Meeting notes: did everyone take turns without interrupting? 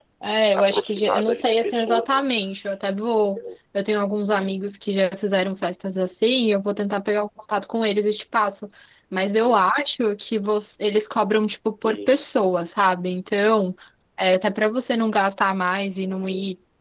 No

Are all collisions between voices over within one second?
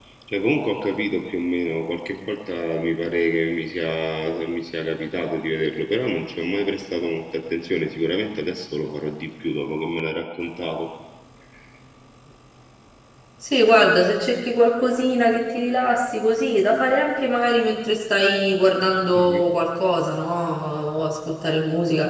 Yes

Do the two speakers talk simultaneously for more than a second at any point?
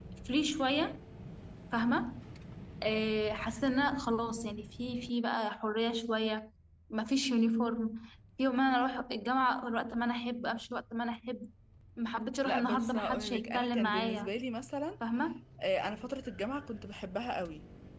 Yes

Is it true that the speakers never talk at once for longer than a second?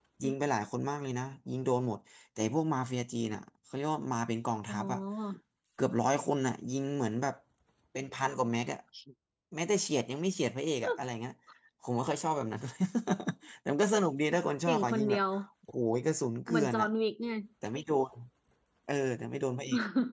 Yes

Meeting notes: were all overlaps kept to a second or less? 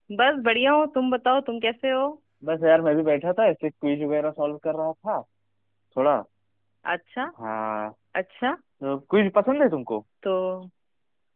Yes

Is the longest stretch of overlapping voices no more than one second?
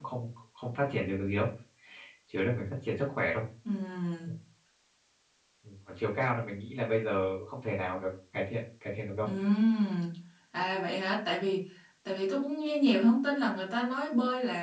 Yes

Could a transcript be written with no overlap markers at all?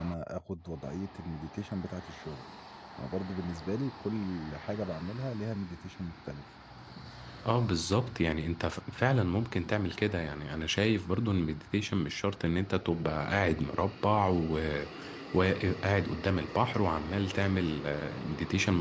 Yes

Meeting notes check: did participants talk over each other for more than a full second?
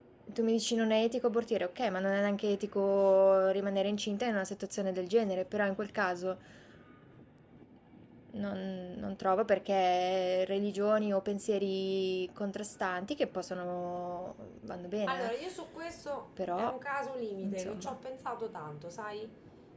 No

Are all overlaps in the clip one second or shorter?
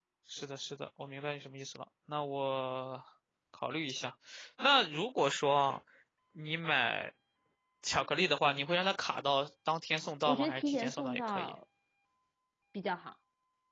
No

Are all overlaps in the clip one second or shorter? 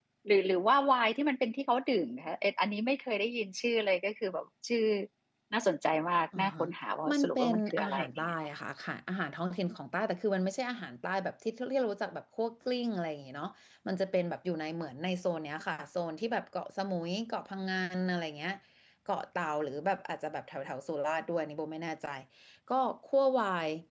No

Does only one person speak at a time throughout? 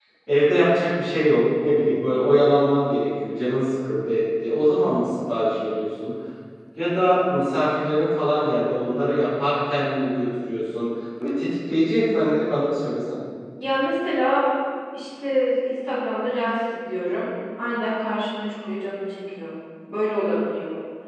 Yes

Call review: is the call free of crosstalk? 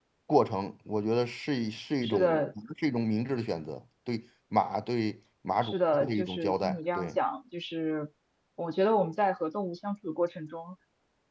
No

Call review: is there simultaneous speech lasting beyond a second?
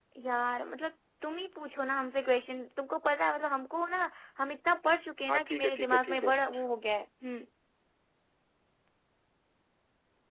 Yes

